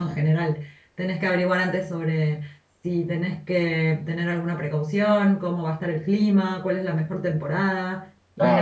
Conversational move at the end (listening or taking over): taking over